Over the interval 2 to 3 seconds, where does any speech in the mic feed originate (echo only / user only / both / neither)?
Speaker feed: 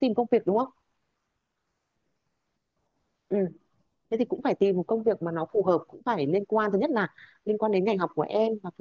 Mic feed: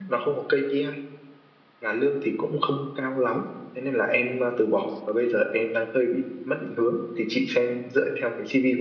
user only